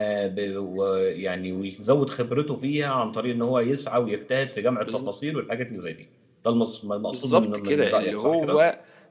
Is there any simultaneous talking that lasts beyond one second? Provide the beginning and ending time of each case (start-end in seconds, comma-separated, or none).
7.1-8.6